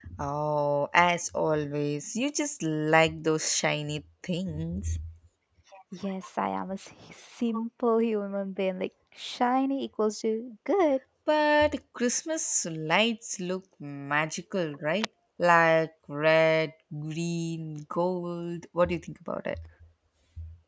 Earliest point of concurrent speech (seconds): none

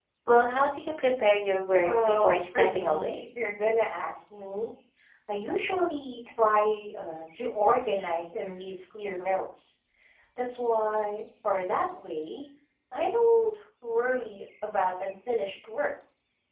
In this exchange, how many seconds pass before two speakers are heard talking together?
1.8 s

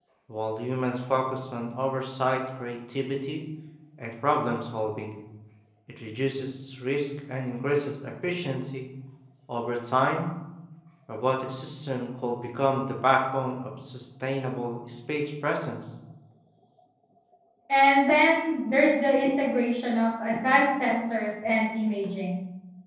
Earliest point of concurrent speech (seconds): none

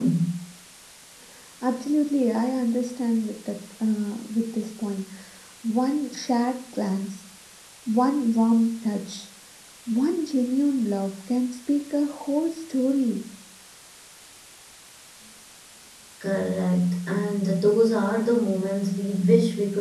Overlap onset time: none

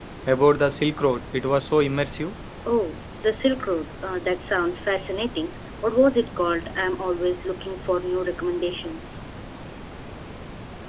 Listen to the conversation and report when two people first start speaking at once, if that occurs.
none

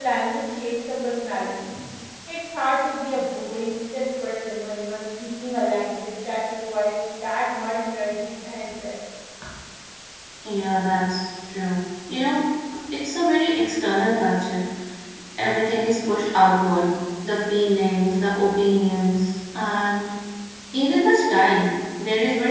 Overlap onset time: none

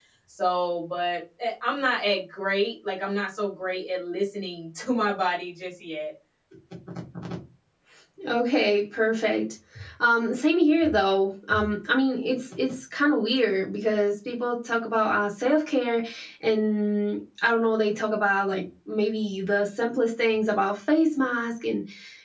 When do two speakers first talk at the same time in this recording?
none

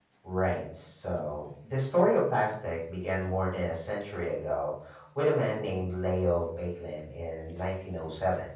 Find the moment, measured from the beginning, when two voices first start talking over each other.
none

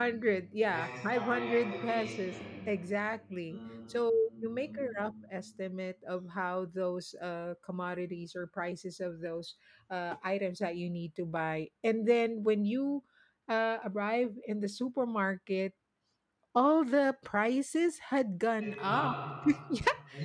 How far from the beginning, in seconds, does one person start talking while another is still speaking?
0.7 s

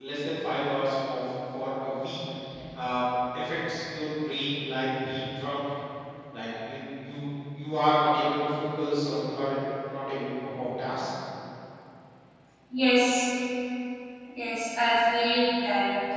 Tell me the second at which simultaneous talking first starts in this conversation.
none

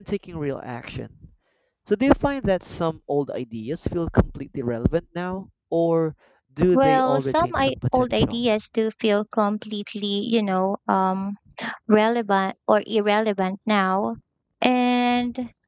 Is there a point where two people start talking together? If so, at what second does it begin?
6.7 s

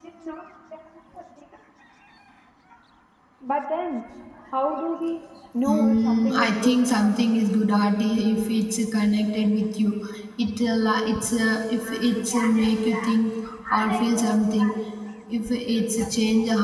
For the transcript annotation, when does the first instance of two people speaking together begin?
5.6 s

